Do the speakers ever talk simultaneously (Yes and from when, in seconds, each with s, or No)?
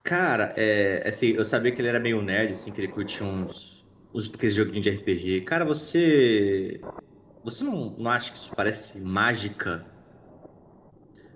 No